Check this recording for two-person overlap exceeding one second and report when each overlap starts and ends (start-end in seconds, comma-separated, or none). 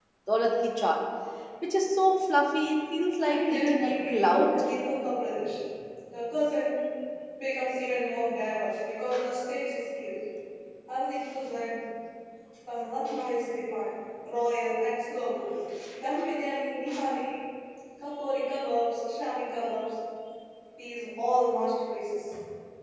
3.2-4.5